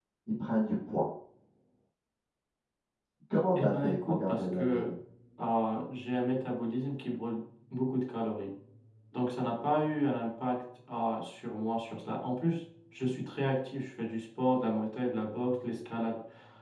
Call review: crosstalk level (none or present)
present